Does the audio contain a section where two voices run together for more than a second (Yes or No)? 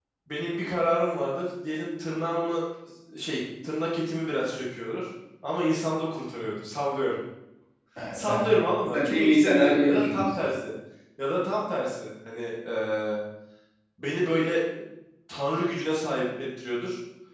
Yes